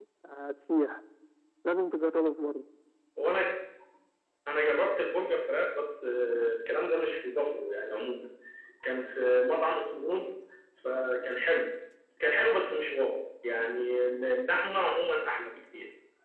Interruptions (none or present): none